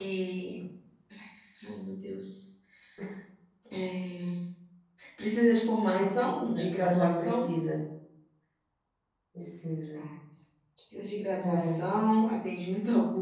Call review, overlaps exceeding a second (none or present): present